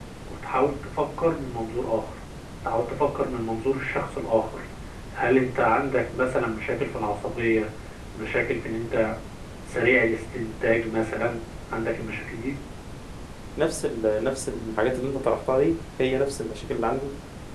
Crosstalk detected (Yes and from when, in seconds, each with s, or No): No